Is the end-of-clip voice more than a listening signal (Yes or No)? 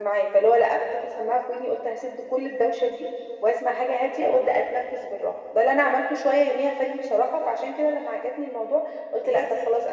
No